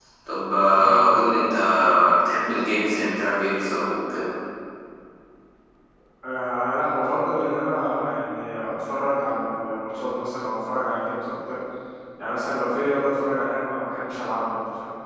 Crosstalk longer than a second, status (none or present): none